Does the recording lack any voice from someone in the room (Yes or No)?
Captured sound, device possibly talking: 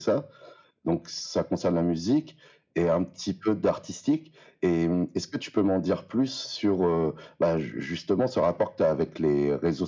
Yes